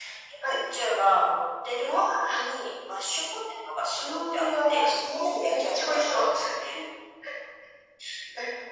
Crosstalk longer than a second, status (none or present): present